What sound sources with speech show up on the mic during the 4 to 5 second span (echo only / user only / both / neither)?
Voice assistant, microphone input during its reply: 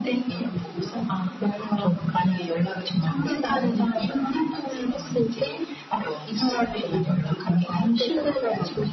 echo only